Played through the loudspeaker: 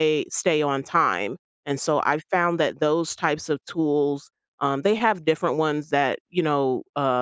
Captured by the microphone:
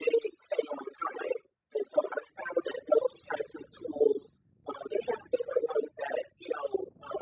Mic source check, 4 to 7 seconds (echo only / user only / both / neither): echo only